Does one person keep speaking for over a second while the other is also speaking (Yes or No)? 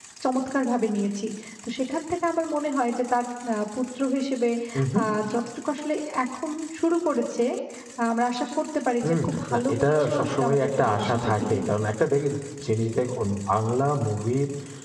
Yes